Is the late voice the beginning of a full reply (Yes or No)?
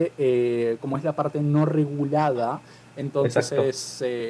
No